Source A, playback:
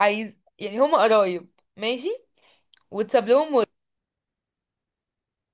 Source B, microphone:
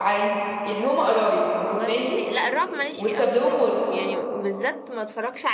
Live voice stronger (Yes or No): No